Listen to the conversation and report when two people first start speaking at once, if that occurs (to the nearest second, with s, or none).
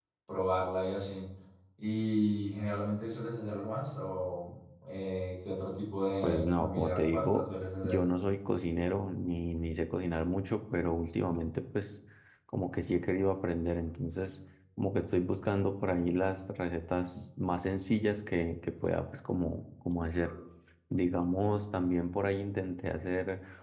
6 s